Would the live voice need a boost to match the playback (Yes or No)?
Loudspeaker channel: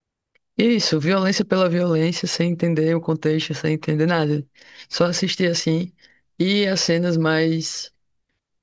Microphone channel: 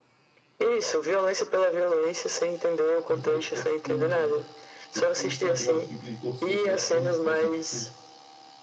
Yes